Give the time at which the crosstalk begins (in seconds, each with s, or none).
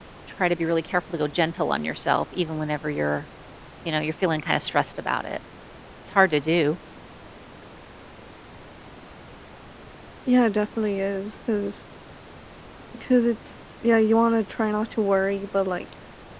none